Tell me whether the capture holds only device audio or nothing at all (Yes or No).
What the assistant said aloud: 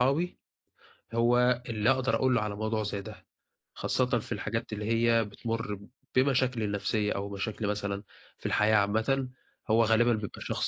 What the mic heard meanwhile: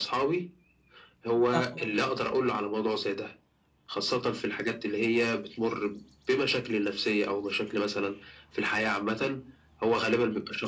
No